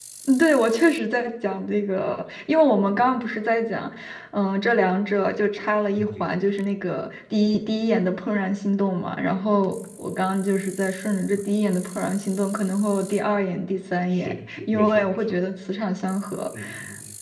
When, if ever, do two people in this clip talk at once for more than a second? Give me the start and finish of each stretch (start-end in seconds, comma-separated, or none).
14.1-15.4